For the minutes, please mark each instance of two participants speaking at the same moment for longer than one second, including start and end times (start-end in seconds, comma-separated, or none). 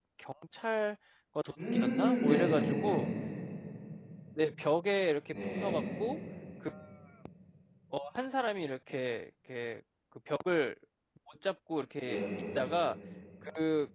1.7-3.0